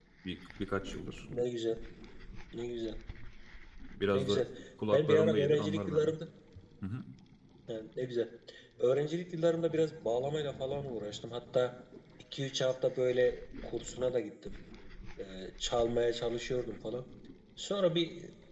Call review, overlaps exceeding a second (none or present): present